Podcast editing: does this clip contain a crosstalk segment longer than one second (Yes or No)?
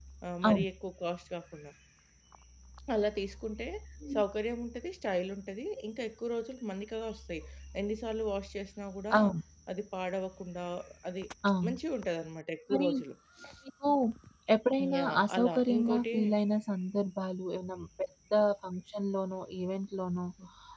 Yes